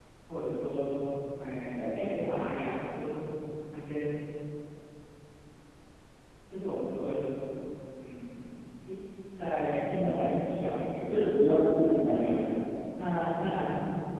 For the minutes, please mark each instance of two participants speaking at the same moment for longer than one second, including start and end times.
11.1-12.3

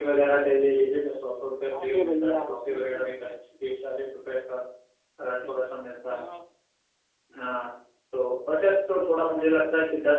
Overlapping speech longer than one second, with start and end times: 1.8-3.1

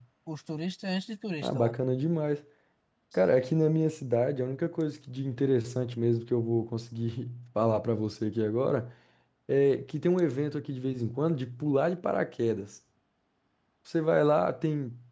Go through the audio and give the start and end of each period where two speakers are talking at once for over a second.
none

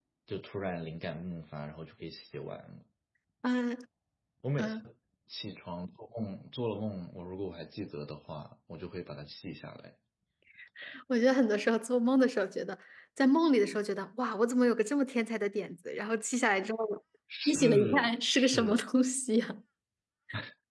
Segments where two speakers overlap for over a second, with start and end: 17.5-18.8

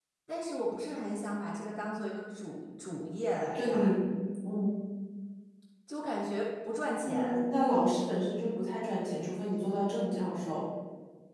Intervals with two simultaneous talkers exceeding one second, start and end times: none

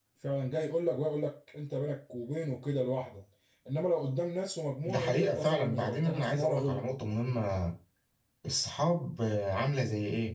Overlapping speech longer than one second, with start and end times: 4.8-6.8

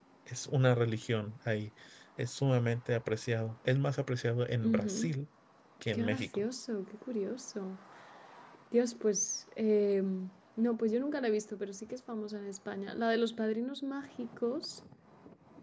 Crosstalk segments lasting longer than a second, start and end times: none

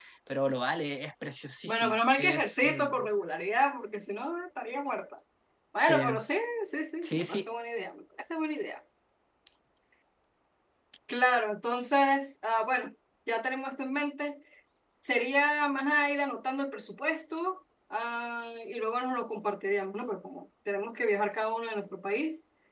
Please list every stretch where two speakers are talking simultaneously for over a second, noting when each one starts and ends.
1.7-3.1

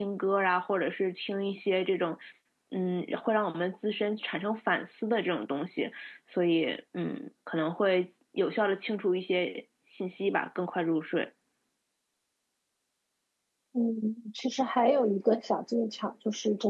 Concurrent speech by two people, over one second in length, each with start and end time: none

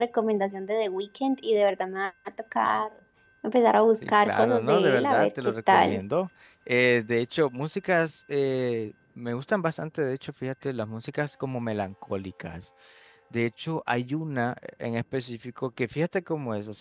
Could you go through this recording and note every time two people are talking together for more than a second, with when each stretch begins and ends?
4.1-6.0

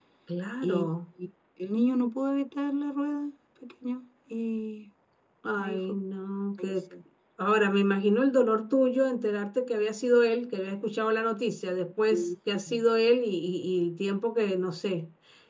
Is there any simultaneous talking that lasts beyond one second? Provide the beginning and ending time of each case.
none

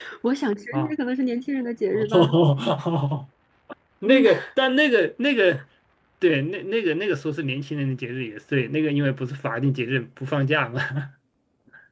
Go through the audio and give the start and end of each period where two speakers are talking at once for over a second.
none

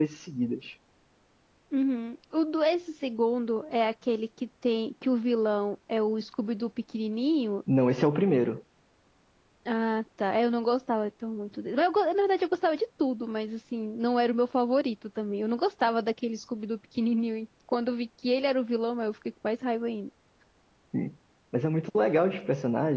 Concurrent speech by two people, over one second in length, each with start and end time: none

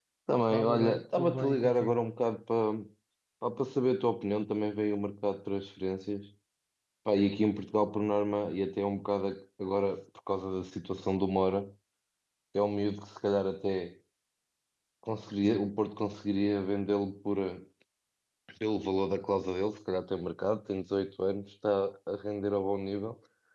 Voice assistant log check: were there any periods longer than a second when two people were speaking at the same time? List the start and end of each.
0.5-2.0

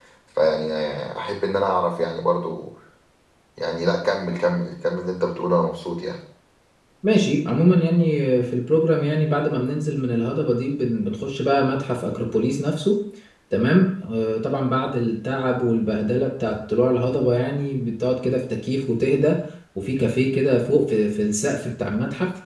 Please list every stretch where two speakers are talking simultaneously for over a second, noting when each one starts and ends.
none

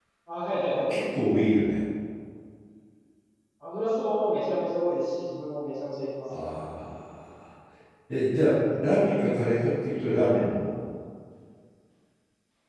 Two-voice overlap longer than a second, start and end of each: none

